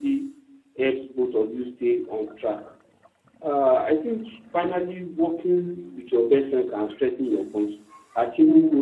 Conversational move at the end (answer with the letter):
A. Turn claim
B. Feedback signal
B